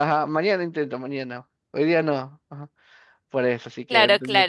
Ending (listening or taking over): taking over